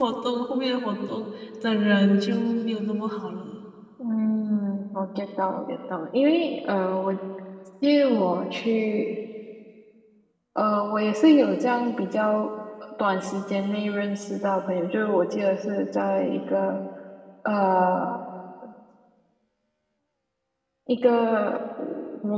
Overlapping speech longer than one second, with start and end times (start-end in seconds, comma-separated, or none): none